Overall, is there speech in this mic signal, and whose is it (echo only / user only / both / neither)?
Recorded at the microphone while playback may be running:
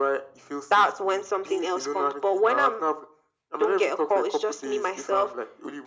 echo only